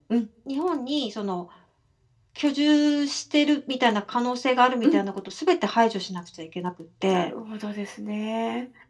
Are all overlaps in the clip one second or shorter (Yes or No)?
Yes